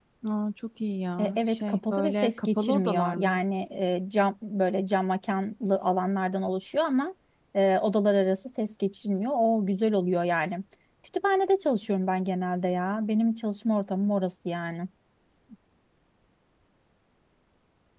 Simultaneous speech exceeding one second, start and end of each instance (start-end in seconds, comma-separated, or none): 1.2-3.4